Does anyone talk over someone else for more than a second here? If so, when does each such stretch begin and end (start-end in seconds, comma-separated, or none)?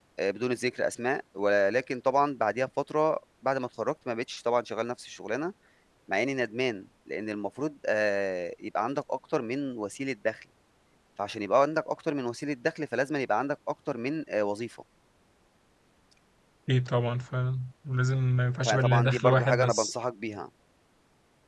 18.6-19.9